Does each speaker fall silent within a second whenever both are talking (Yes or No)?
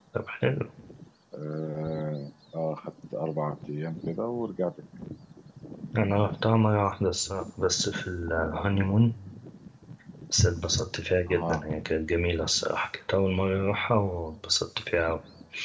Yes